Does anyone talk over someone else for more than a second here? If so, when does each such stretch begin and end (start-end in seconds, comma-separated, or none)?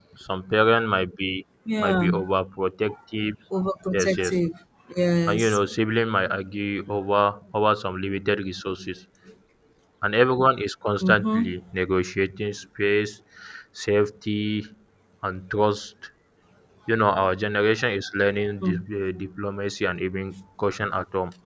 none